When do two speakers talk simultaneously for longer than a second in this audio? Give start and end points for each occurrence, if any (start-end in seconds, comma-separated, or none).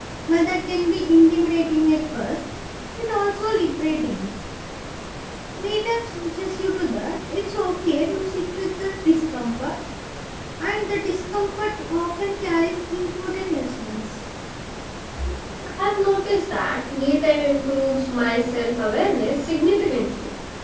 none